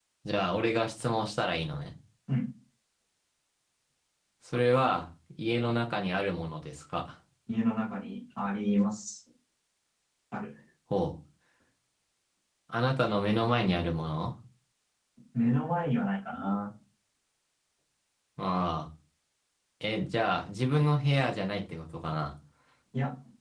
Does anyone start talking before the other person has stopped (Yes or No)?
No